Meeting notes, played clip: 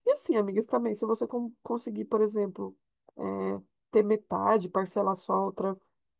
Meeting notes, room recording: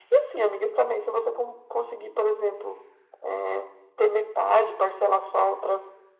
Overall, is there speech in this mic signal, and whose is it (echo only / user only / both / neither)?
echo only